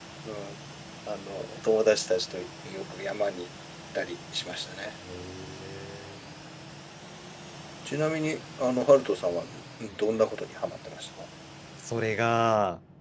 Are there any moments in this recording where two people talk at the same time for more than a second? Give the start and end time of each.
none

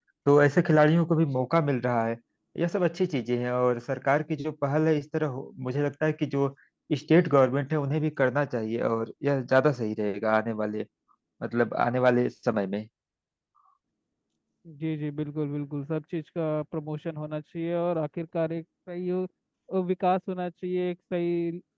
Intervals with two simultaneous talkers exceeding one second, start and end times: none

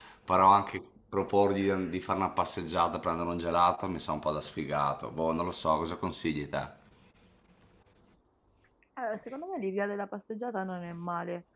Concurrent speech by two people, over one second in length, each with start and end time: none

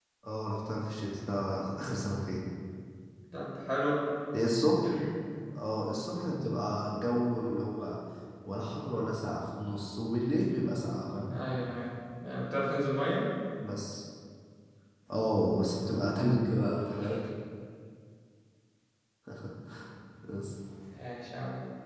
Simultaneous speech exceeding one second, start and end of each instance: none

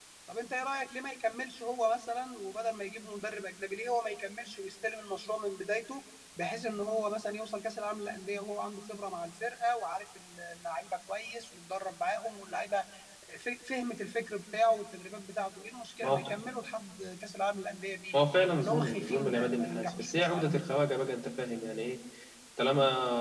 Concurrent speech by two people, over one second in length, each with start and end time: 18.6-20.5

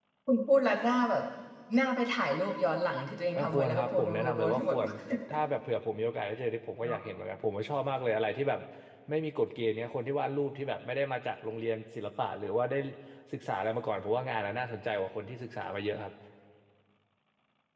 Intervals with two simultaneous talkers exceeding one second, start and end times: 3.4-4.8

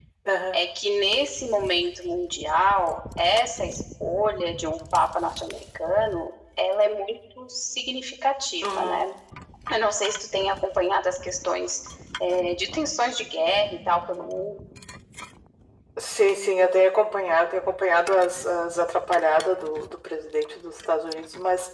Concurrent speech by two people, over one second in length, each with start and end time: none

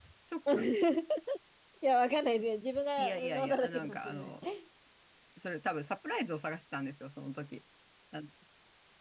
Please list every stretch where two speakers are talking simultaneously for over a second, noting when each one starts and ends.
3.0-4.3

